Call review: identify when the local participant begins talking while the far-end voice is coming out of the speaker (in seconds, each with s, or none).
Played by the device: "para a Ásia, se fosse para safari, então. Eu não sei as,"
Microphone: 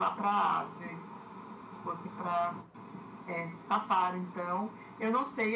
none